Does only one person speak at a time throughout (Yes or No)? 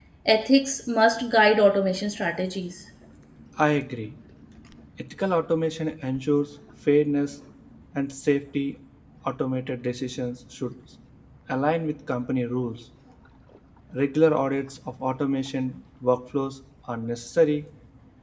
Yes